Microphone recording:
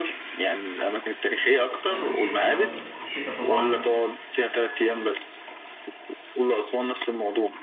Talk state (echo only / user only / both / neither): both